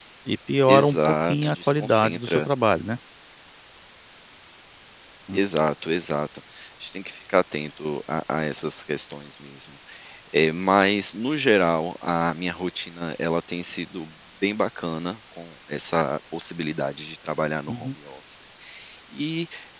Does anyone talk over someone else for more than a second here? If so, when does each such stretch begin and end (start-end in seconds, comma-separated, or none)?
0.7-2.4